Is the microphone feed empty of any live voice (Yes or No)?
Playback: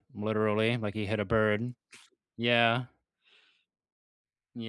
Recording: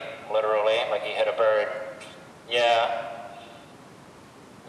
Yes